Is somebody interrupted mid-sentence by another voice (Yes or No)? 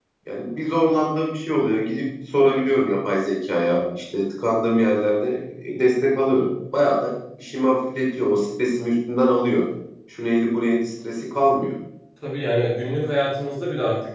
No